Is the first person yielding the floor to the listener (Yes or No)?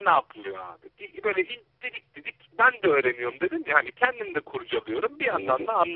No